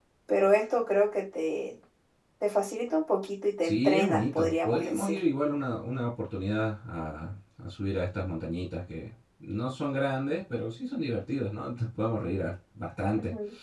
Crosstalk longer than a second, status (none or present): present